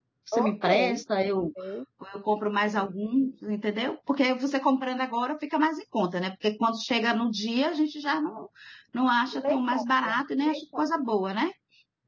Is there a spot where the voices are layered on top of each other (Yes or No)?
Yes